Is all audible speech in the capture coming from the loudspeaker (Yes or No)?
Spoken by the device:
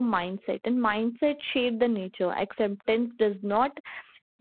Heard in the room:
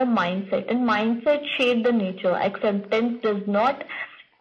Yes